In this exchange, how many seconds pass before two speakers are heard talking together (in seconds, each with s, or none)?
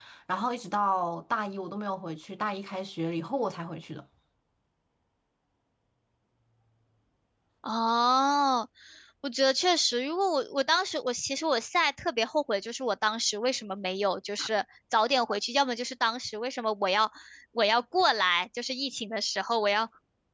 none